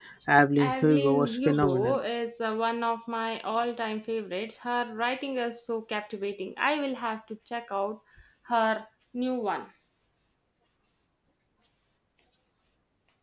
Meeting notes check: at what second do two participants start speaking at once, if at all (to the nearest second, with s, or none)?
1 s